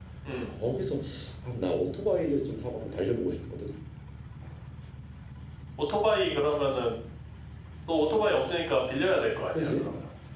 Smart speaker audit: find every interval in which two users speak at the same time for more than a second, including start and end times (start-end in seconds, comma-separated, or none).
none